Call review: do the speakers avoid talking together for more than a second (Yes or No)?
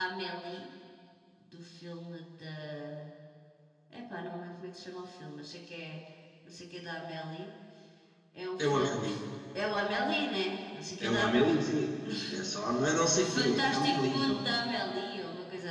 No